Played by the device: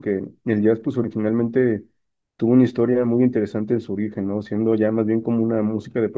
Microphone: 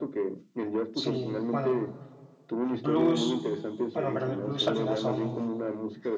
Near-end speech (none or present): present